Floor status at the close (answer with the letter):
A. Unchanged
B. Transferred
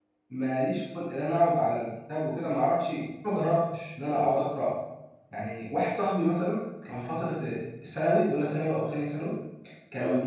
A